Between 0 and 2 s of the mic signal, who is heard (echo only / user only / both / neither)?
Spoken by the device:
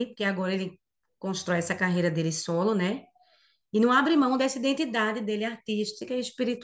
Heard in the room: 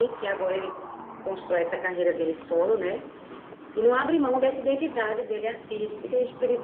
echo only